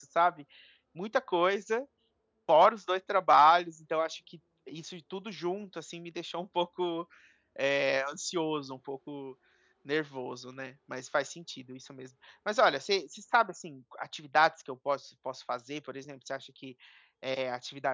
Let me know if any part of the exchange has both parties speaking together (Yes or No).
No